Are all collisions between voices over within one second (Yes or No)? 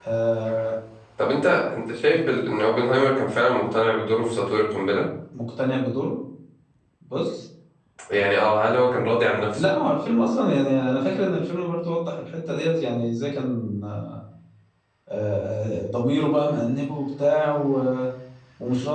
Yes